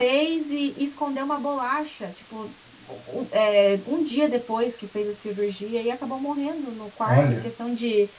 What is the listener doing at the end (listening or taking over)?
listening